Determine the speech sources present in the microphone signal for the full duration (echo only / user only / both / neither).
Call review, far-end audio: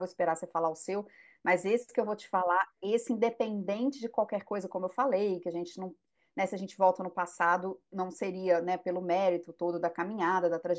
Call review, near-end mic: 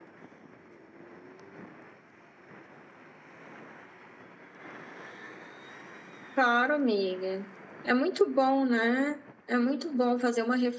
user only